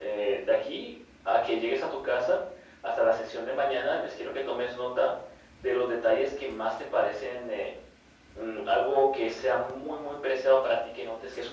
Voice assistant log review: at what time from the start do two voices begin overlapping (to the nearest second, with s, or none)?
none